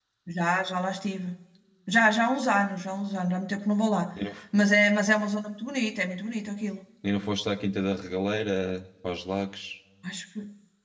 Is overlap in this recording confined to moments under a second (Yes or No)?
Yes